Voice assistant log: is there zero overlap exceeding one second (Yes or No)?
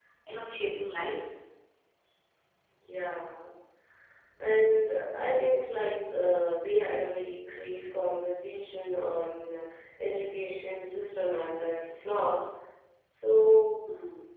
Yes